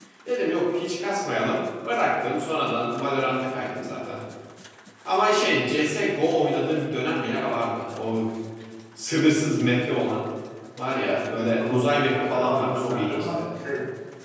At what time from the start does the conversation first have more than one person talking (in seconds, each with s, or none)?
11.3 s